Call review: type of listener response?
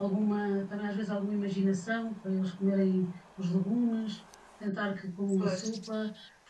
listening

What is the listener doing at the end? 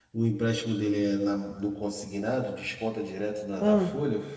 listening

